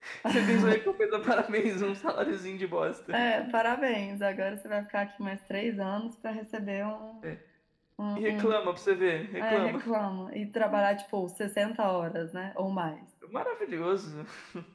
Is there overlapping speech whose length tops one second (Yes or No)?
No